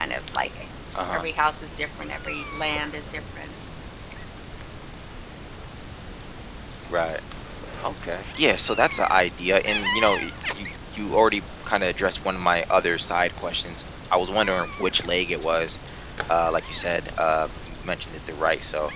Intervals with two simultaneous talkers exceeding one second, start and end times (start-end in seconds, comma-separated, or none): none